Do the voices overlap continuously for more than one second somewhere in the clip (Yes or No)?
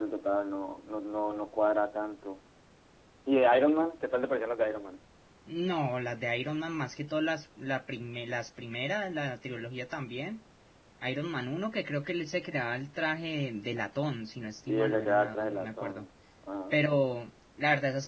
Yes